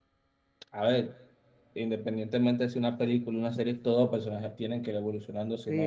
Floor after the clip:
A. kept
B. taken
B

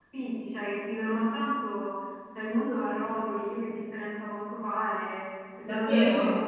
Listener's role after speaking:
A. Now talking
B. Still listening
A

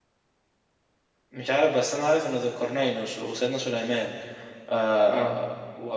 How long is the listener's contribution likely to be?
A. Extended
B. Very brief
B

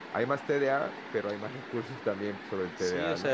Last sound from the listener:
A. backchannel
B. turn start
B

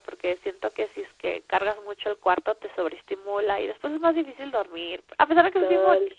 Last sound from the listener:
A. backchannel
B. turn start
B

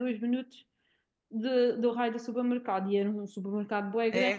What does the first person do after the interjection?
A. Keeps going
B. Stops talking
B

